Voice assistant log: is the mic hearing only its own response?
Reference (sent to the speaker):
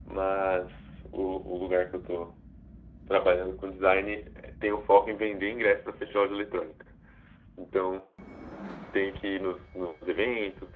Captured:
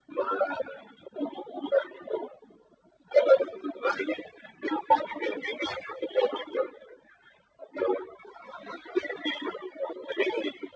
Yes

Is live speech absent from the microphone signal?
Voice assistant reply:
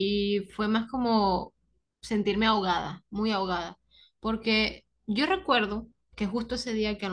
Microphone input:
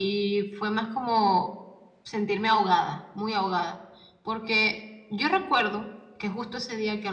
Yes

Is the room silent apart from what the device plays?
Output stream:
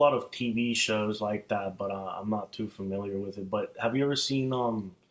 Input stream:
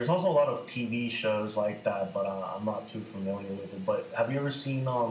Yes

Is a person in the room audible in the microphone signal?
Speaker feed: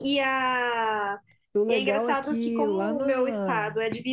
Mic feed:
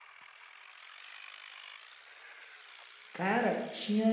Yes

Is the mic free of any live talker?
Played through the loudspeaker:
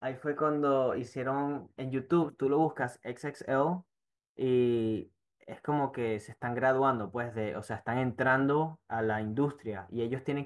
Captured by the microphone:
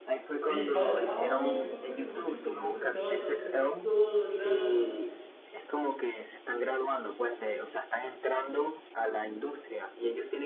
No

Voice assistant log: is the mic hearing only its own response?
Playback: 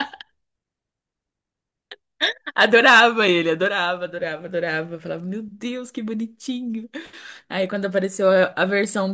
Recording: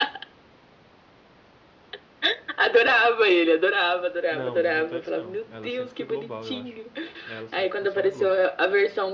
No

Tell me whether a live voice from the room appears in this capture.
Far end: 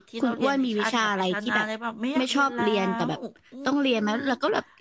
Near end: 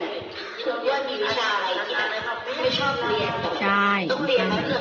Yes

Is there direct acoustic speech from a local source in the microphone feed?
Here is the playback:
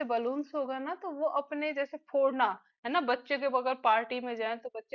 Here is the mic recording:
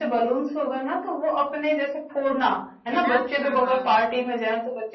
Yes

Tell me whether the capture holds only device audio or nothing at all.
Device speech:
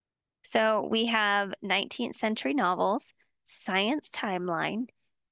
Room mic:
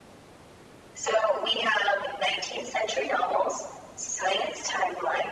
Yes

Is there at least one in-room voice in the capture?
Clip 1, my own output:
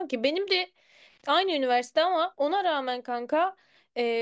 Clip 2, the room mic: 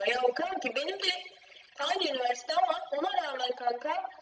No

